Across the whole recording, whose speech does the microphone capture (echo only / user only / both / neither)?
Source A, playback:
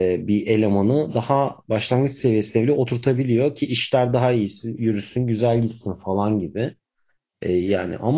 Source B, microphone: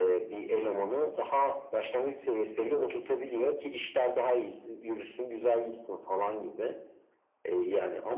echo only